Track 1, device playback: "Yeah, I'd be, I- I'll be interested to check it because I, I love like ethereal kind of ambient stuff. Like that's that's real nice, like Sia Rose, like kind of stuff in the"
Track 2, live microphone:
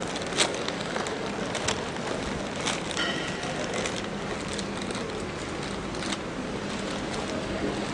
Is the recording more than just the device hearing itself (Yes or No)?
No